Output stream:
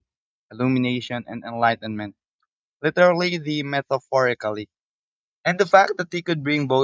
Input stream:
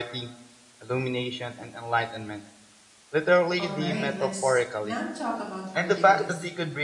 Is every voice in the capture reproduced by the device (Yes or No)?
No